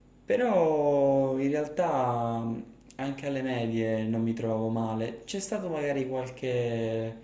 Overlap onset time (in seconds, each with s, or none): none